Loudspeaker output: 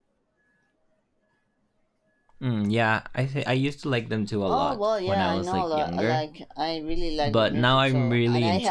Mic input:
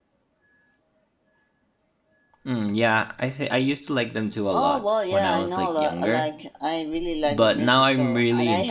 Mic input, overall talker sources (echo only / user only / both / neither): echo only